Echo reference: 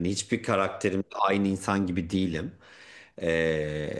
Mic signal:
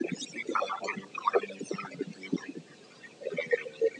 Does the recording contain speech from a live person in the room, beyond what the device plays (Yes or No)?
No